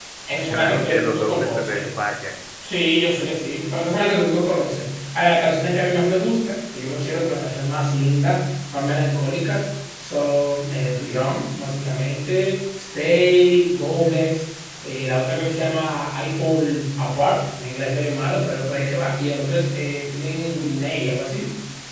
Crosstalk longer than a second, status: present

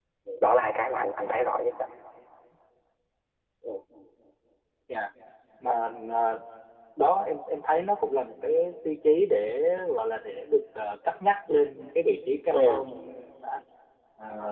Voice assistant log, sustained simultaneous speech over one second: none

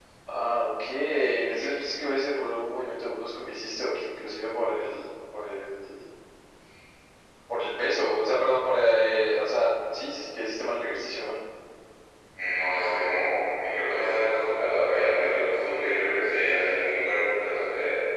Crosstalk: none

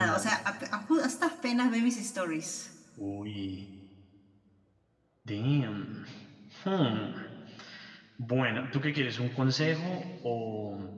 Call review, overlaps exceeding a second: none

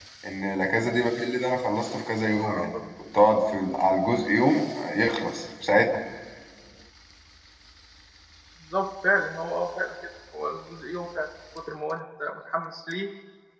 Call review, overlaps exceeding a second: none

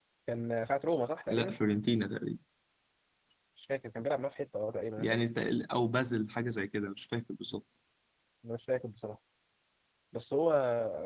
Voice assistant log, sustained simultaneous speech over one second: none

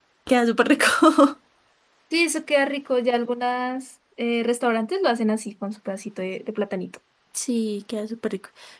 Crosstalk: none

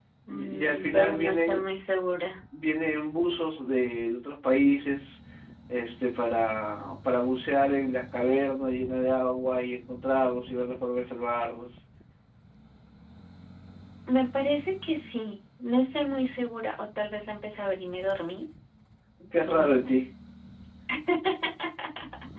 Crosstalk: present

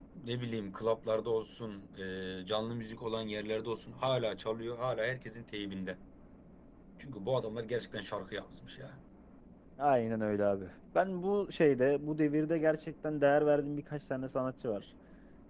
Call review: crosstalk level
none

